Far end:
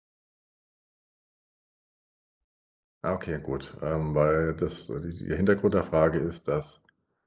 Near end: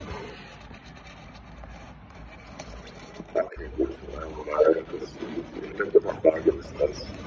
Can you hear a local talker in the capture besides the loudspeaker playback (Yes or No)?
No